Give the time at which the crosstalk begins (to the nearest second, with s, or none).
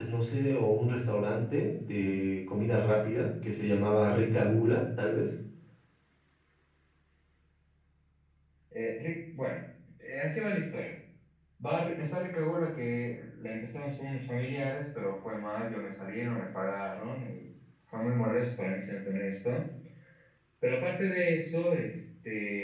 none